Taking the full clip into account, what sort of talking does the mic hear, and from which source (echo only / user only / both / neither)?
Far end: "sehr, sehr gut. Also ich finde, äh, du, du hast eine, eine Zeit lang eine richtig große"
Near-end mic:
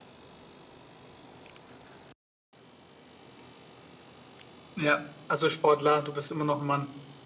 user only